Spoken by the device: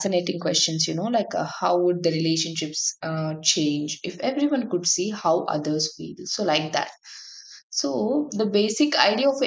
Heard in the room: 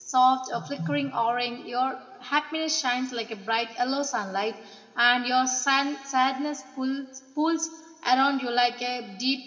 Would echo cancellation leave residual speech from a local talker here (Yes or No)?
Yes